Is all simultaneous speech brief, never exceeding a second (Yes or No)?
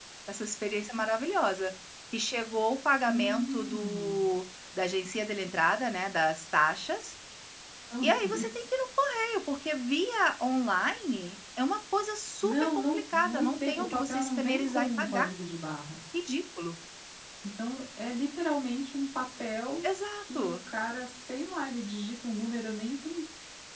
No